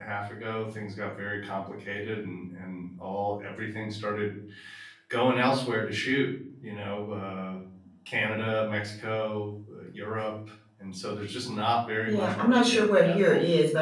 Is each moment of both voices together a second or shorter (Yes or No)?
No